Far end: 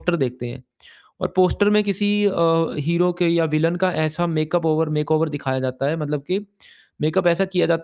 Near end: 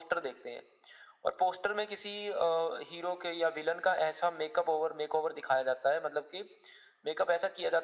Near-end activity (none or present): none